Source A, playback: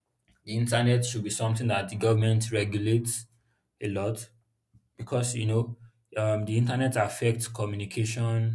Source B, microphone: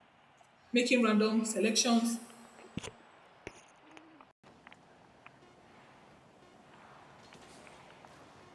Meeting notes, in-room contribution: present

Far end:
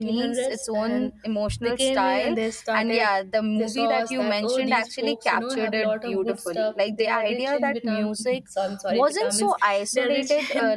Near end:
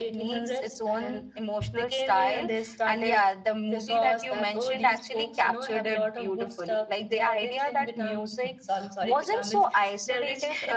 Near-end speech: none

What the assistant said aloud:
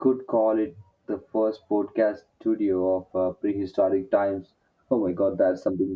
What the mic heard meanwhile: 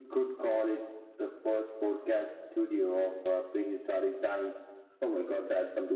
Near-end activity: none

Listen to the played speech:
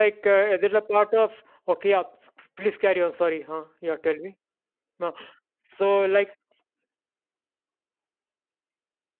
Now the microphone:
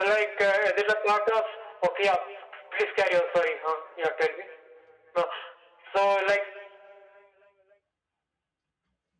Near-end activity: none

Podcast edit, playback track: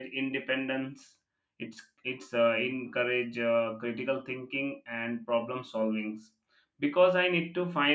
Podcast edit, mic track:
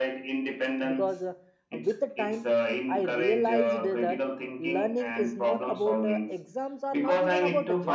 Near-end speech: present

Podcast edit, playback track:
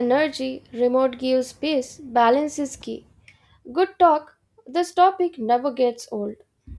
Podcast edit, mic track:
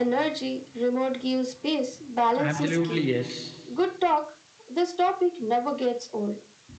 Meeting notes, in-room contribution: present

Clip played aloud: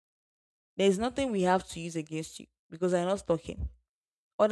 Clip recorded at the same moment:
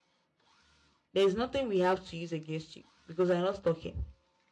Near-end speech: none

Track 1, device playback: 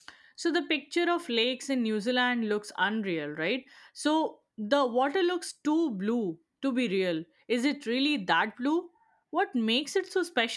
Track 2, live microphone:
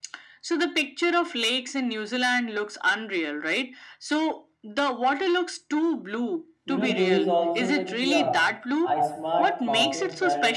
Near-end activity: present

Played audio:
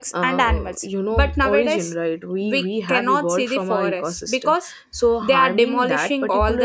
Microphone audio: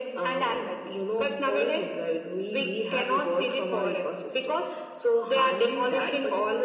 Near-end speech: none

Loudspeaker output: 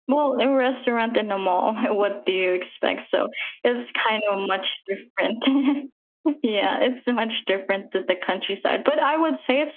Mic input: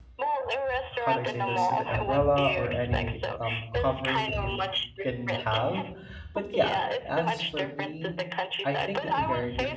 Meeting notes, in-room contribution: present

